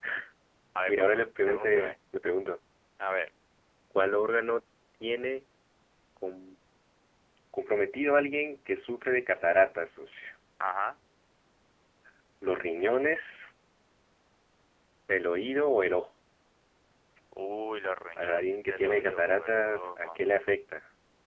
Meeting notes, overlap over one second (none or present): present